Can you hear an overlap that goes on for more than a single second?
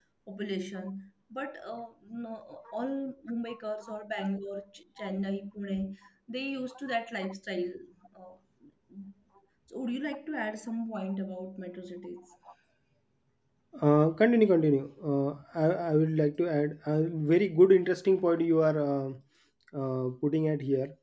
No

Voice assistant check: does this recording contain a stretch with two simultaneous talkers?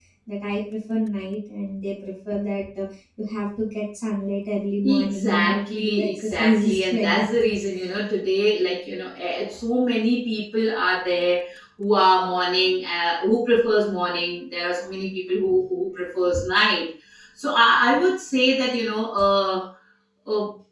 Yes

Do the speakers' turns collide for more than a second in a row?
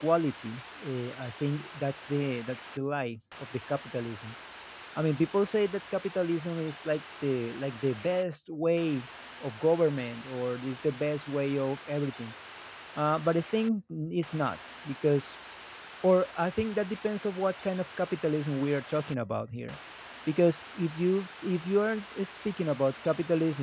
No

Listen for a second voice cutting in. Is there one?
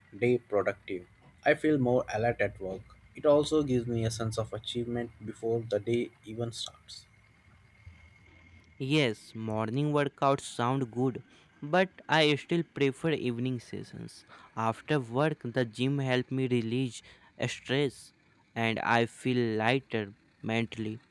No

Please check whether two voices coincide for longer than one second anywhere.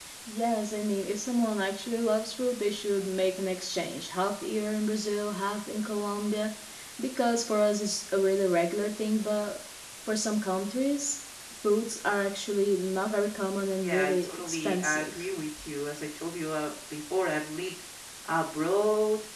Yes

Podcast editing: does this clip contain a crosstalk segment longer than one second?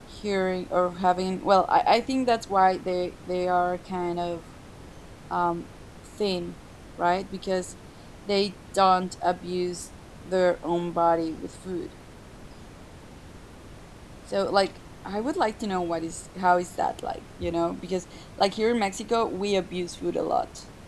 No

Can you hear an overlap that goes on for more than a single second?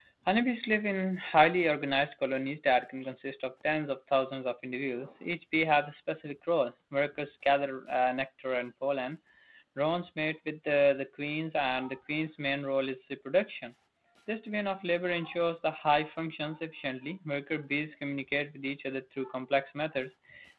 No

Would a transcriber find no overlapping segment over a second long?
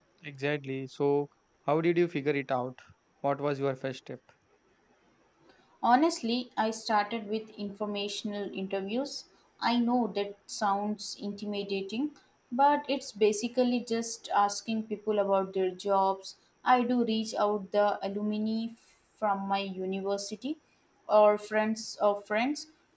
Yes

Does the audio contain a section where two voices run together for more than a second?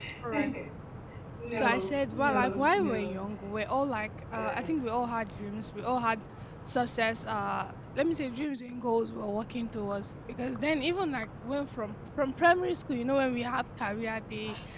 Yes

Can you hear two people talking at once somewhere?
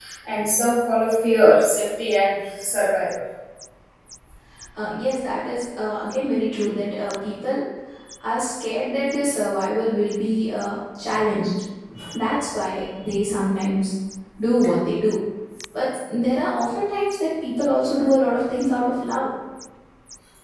No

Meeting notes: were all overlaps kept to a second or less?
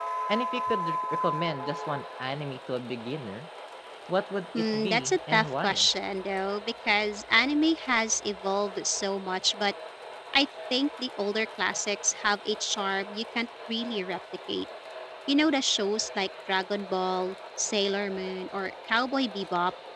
No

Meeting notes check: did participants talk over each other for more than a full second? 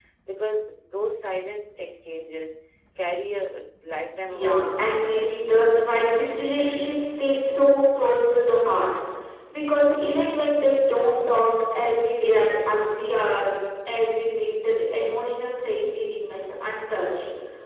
Yes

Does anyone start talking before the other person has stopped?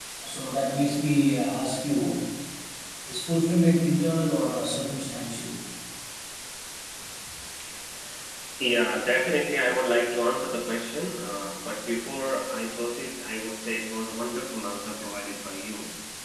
No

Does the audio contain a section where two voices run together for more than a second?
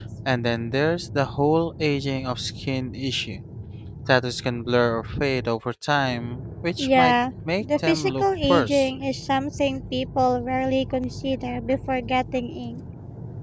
Yes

